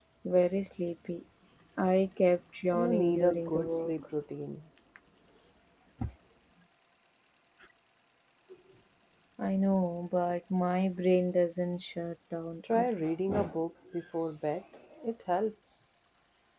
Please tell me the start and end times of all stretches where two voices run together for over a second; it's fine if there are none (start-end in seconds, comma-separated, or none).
2.7-4.0